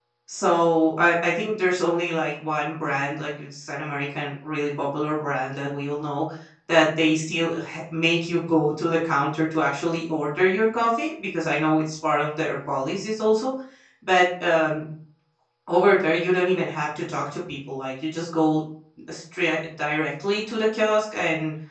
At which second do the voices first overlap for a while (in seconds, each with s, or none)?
none